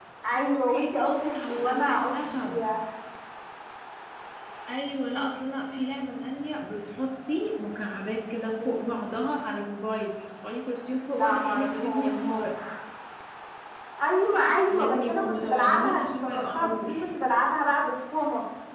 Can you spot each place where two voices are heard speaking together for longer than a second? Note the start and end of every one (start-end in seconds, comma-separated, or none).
0.5-2.4, 11.1-12.5, 14.7-17.1